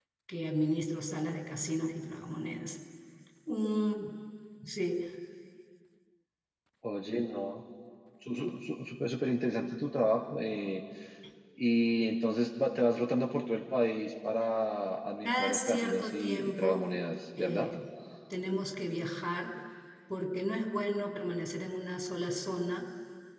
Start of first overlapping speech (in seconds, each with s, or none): 15.2 s